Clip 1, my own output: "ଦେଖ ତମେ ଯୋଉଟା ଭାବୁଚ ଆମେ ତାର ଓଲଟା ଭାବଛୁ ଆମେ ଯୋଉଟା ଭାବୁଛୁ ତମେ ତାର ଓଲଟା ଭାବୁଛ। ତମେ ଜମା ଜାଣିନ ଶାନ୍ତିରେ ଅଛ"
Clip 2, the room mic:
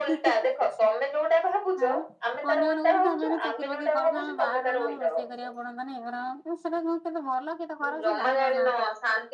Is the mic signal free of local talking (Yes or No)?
No